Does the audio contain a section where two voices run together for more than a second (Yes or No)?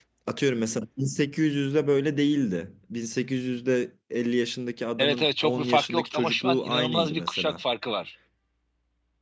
Yes